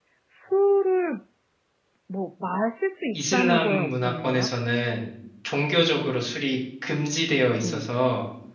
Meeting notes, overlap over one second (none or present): present